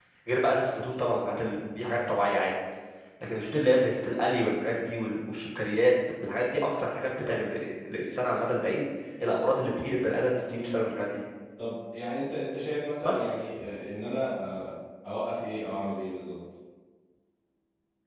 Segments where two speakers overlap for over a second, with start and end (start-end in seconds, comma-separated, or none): none